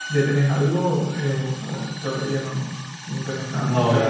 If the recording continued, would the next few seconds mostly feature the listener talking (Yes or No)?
Yes